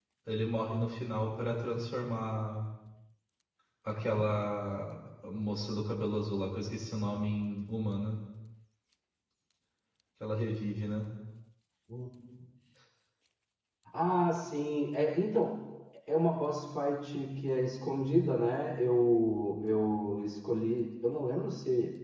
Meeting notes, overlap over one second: none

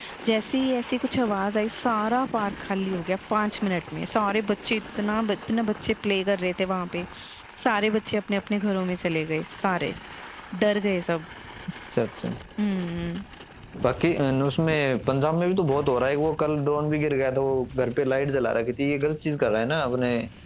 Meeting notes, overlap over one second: none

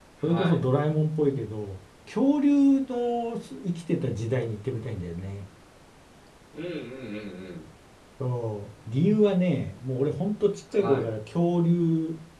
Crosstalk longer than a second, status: none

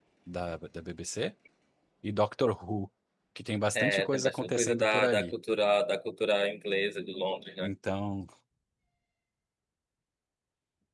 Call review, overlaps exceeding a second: present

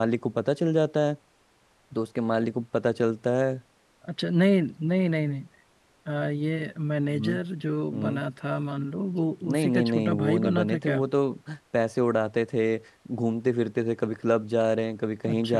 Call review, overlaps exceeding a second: present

